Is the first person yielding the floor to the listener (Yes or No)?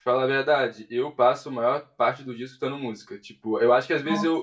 No